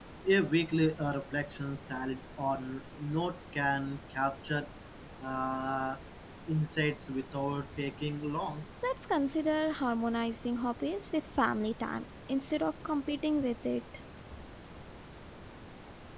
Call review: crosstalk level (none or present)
none